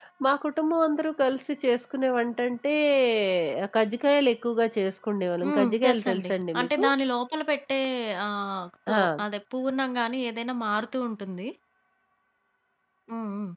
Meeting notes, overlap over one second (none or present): present